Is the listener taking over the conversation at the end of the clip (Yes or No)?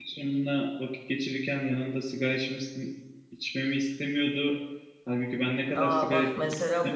Yes